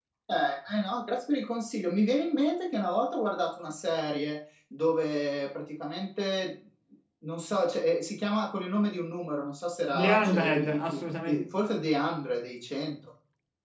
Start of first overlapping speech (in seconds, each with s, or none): 9.9 s